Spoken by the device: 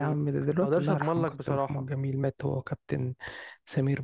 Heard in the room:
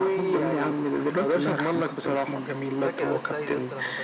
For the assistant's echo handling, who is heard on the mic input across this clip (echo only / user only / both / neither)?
both